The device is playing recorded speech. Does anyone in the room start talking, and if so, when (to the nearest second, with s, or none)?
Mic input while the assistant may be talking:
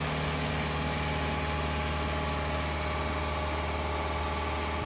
none